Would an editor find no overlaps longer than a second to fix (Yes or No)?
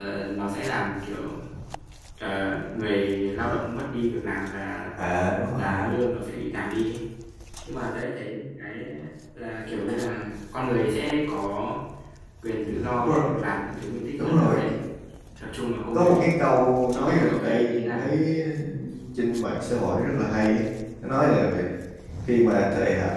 No